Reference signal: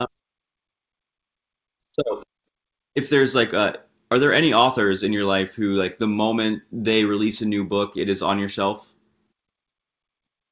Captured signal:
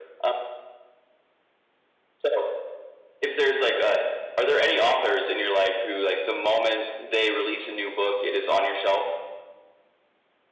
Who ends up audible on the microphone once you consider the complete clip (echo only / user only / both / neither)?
echo only